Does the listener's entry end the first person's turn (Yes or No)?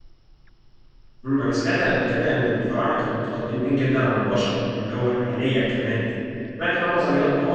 No